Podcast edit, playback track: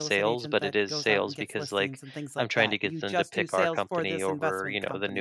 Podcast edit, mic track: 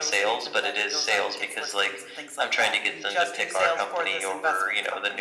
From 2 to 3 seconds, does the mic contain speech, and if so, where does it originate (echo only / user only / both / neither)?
echo only